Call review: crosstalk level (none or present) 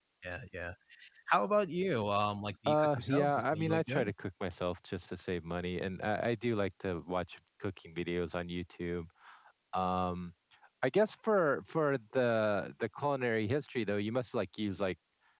present